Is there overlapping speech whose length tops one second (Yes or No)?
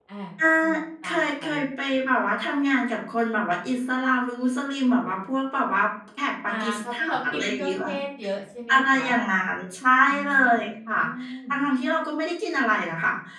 Yes